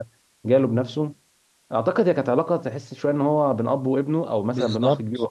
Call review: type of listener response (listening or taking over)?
taking over